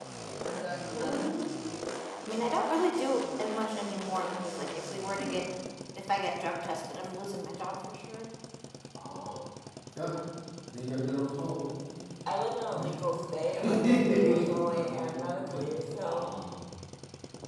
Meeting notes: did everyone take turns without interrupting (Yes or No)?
No